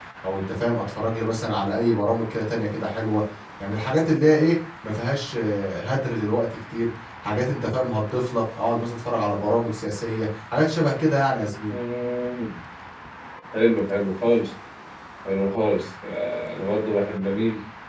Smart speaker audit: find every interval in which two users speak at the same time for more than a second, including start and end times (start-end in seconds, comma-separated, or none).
none